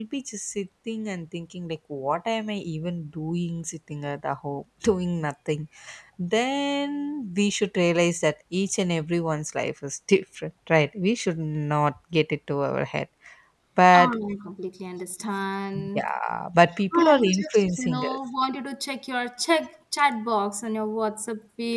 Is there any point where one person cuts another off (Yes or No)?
Yes